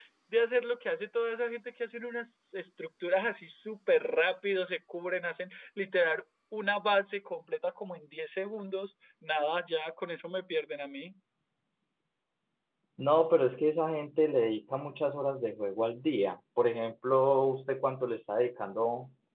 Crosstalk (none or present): none